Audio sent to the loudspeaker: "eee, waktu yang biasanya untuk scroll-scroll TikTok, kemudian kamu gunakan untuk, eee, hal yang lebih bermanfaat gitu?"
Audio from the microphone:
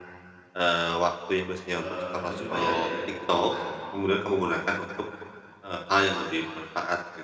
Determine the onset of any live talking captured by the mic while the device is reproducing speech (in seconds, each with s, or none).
1.7 s